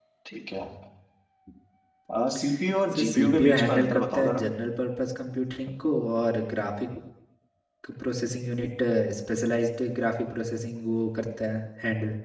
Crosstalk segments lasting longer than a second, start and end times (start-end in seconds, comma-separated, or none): 2.9-4.4